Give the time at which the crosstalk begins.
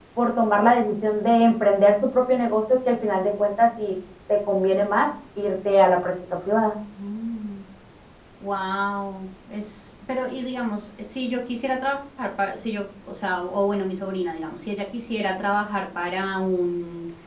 none

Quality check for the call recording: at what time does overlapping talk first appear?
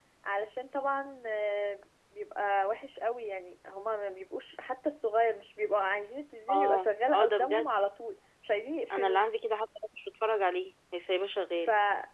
6.5 s

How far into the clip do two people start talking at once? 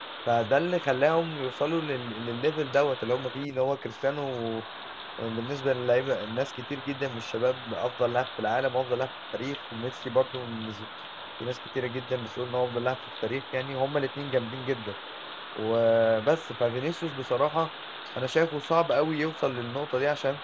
none

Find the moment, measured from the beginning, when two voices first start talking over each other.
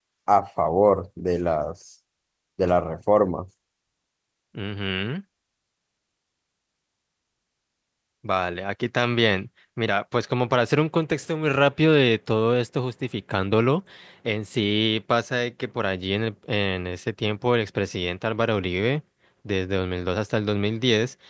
none

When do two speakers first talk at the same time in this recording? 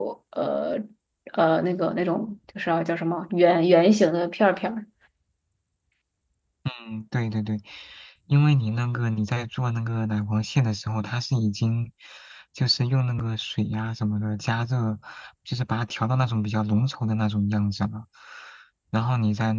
none

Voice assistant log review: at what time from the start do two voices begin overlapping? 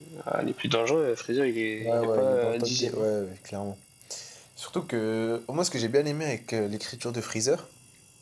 1.8 s

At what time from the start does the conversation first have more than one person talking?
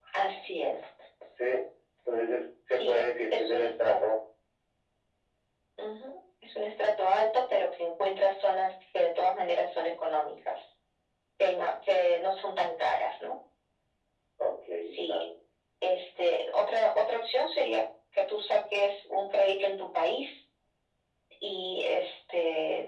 2.7 s

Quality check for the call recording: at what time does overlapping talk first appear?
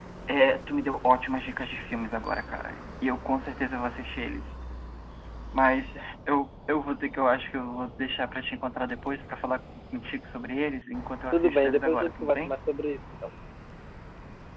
11.3 s

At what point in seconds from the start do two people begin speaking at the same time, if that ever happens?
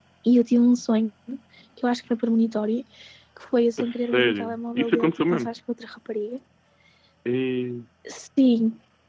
3.8 s

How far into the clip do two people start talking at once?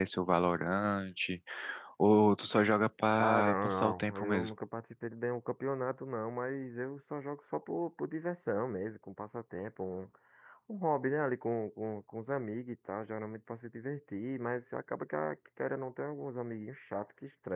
3.2 s

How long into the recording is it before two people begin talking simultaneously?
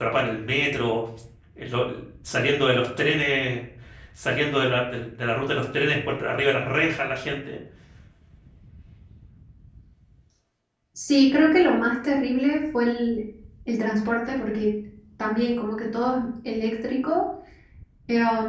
none

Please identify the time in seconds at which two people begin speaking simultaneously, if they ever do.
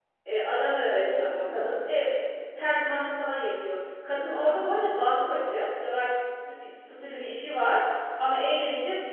0.8 s

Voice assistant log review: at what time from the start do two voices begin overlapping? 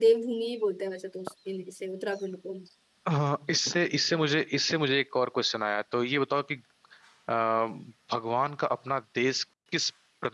none

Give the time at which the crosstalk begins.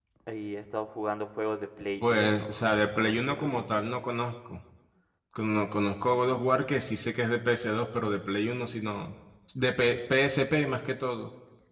2.0 s

